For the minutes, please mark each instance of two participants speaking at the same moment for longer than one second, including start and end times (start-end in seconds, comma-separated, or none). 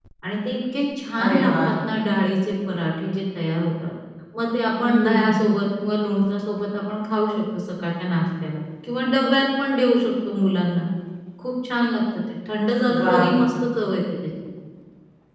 none